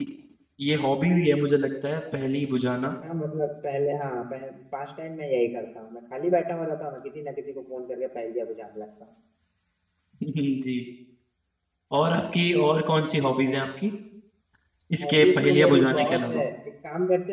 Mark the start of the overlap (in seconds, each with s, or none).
15.0 s